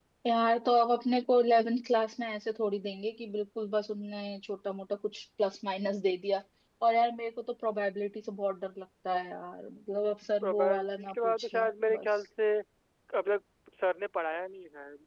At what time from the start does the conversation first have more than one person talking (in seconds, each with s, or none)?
10.4 s